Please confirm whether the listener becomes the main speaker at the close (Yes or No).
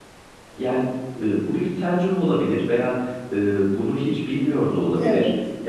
No